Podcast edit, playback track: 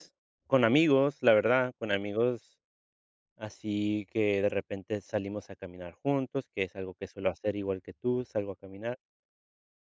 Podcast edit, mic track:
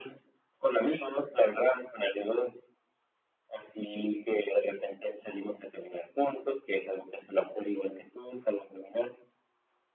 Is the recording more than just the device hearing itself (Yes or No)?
No